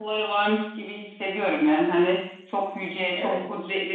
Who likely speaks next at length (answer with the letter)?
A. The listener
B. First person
B